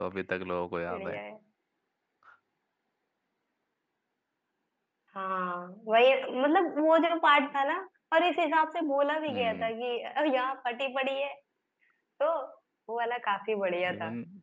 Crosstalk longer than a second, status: none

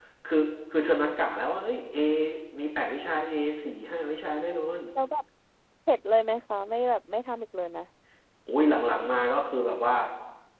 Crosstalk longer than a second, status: none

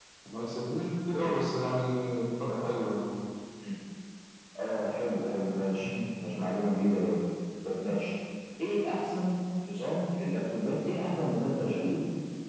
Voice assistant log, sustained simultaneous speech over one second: none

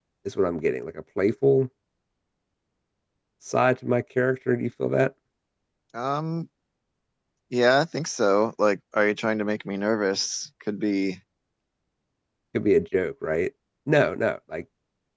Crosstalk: none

